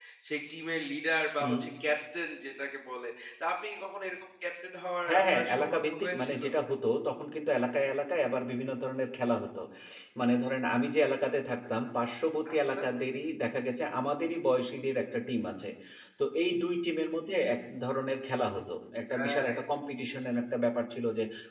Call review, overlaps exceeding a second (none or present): present